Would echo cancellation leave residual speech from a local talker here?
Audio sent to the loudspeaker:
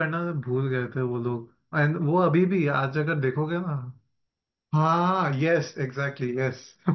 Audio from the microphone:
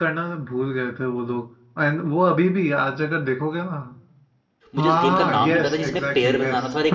Yes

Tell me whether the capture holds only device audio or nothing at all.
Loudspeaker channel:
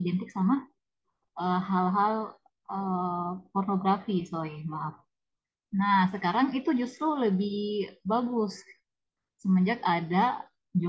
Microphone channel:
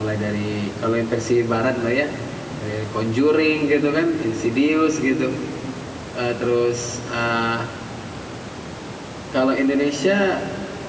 No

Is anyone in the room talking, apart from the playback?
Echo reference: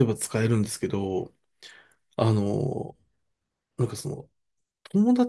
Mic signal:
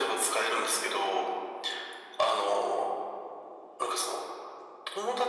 No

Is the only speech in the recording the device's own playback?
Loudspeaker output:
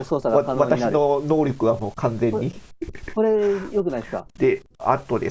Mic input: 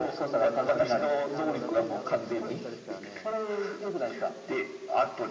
No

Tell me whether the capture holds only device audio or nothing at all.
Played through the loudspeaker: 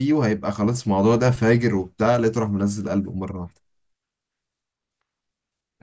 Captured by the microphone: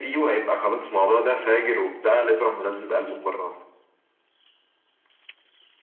Yes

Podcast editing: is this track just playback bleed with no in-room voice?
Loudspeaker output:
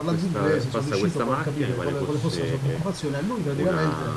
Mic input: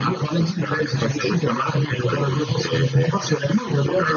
Yes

